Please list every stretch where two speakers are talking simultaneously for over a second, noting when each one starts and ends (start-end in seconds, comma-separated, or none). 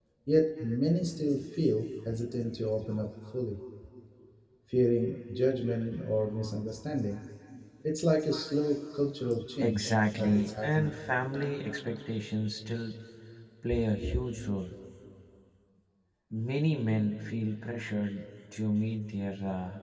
9.6-10.9